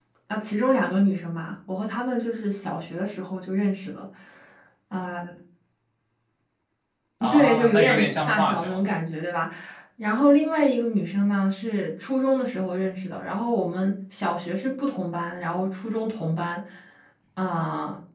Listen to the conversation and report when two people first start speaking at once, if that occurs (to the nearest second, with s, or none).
7 s